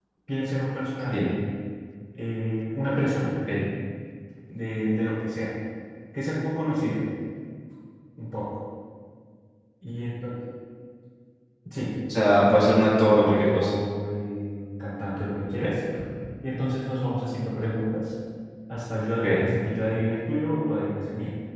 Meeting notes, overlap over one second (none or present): present